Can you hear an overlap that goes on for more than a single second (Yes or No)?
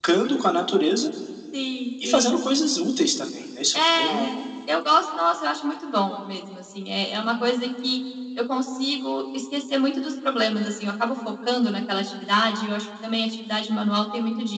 No